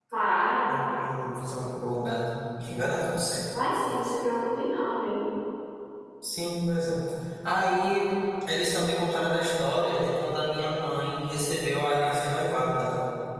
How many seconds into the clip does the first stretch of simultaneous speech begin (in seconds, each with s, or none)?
none